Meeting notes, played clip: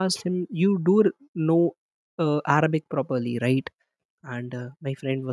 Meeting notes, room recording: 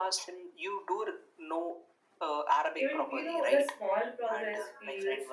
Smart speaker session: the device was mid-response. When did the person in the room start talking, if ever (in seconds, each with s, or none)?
2.8 s